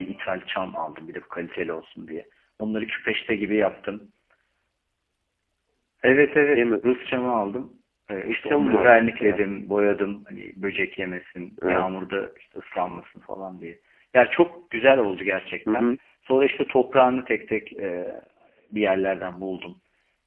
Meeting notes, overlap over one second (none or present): present